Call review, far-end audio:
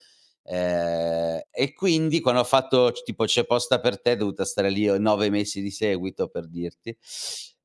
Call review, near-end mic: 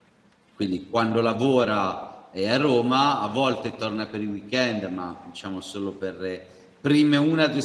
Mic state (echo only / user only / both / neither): user only